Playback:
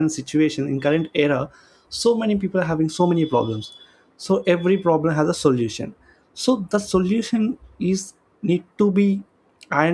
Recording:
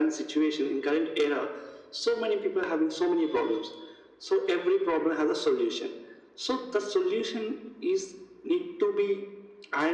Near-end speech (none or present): none